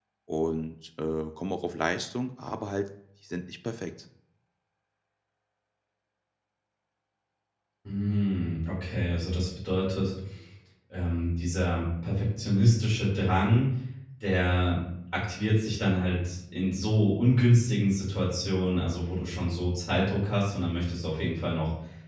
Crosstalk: none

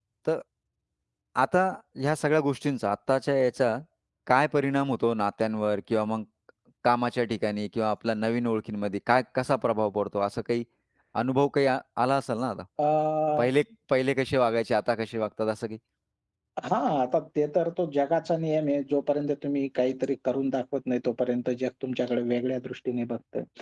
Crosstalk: none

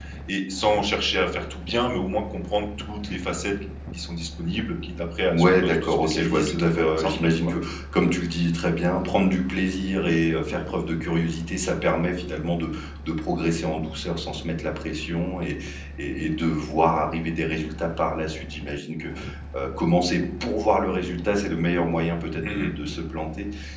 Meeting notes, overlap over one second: present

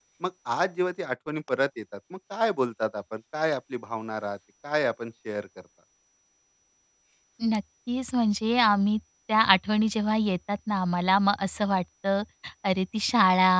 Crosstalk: none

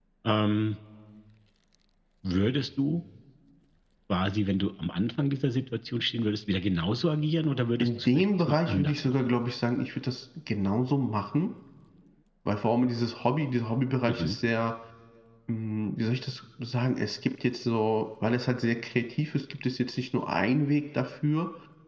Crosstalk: present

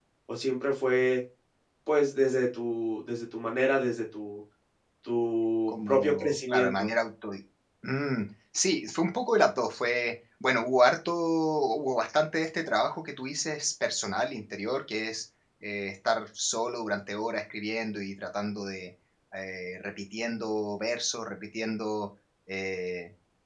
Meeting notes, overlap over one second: present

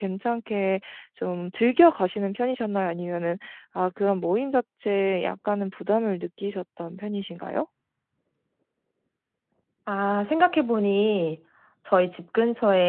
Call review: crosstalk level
none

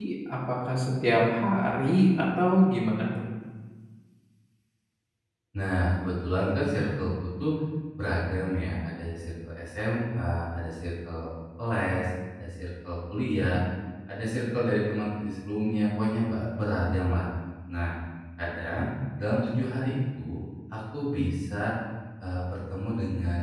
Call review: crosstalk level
none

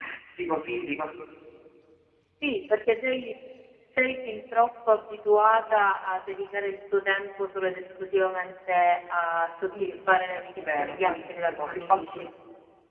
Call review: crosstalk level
present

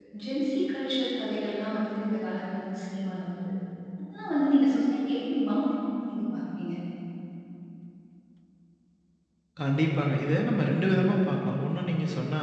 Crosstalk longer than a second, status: none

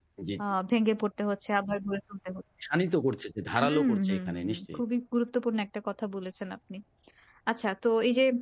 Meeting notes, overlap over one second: present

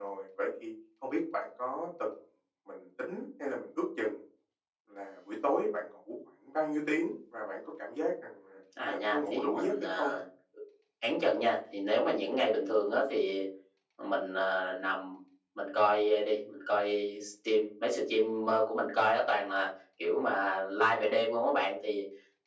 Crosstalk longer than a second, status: present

